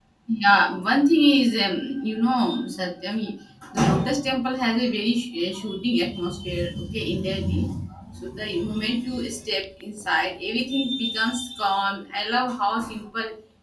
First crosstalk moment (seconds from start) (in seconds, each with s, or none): none